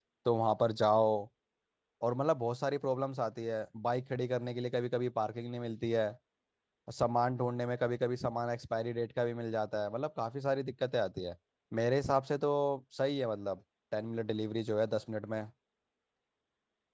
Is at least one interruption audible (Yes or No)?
No